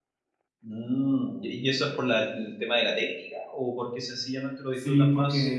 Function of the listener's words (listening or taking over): taking over